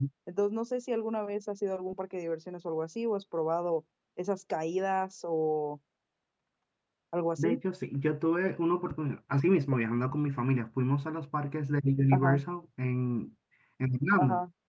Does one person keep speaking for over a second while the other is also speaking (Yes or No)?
No